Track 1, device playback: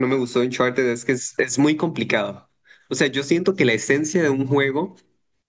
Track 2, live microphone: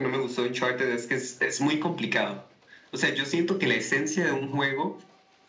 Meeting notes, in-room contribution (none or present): none